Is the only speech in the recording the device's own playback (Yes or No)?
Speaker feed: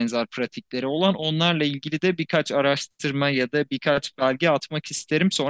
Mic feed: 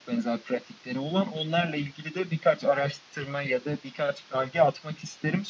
Yes